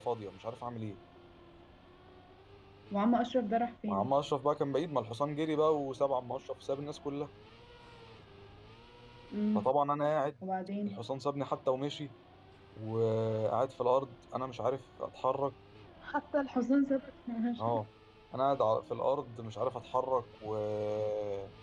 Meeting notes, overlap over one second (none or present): none